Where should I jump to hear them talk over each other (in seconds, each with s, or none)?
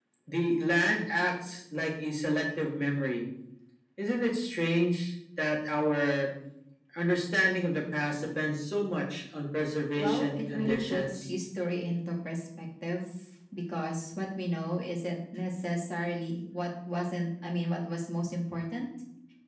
10.0 s